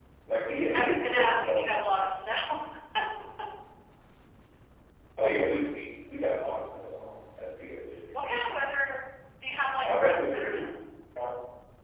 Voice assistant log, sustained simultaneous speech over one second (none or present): present